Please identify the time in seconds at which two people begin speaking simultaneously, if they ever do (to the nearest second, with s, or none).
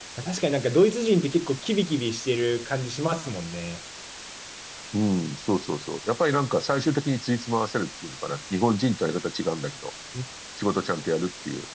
none